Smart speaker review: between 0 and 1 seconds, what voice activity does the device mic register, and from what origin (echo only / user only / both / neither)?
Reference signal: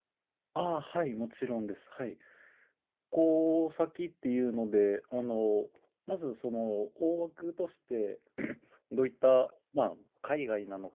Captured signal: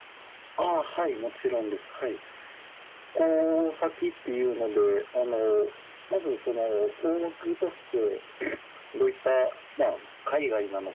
echo only